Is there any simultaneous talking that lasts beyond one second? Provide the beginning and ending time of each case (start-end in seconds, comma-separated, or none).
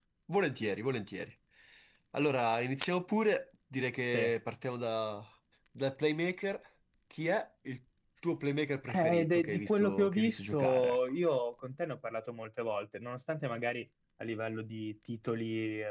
8.9-11.0